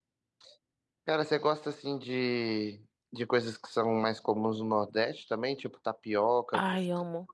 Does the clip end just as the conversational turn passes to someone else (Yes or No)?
Yes